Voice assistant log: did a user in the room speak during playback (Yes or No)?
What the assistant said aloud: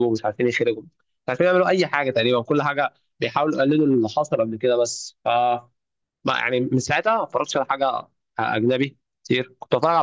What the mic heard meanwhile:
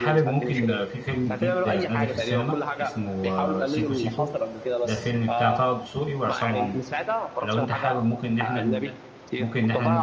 Yes